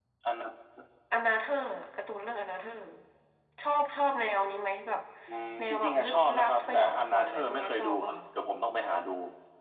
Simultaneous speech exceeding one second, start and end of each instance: 5.6-8.1

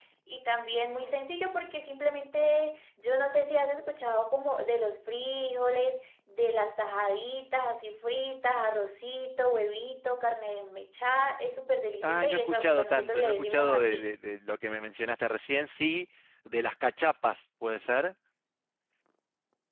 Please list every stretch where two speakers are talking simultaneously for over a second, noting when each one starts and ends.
12.0-14.1

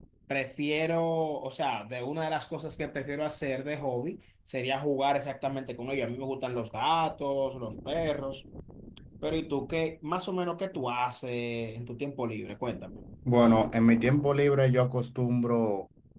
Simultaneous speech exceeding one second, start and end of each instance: none

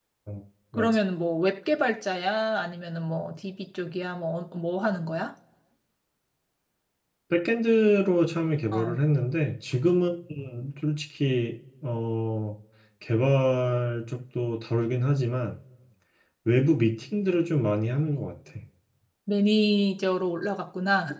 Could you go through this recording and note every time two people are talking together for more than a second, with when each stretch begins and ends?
none

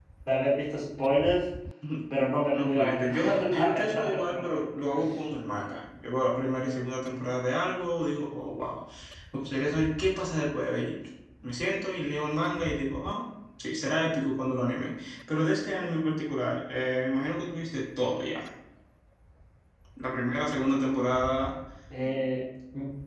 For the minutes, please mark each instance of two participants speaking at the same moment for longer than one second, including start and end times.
2.5-4.4

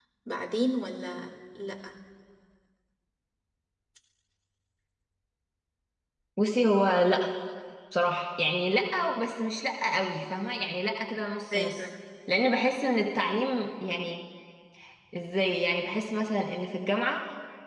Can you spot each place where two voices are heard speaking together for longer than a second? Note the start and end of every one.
none

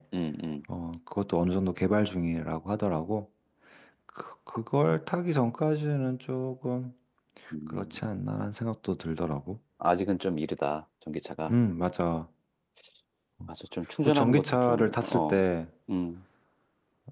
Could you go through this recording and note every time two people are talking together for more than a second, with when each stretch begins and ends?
14.0-15.4

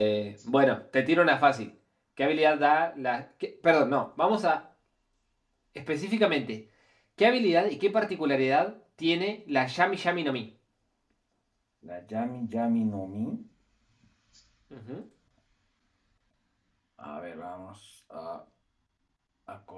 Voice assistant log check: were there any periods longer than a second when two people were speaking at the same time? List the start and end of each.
none

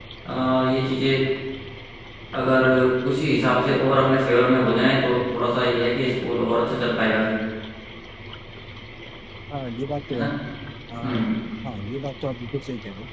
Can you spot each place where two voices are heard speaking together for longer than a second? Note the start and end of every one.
none

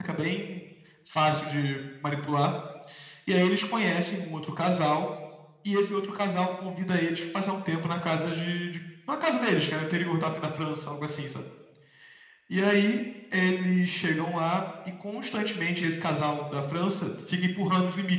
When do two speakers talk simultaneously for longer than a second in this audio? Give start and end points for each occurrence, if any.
none

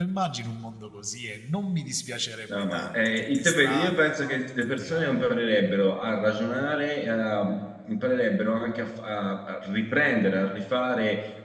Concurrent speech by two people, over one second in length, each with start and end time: 2.5-5.2

